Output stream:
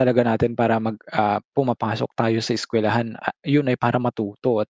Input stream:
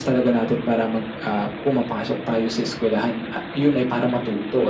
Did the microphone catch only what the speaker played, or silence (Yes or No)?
Yes